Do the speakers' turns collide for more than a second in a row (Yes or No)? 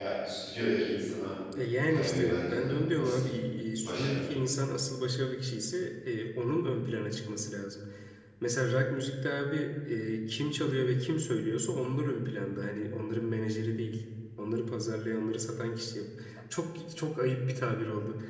Yes